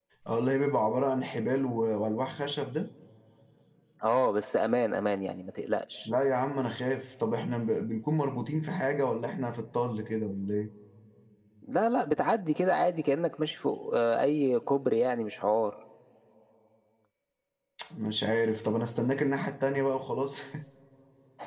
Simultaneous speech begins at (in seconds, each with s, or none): none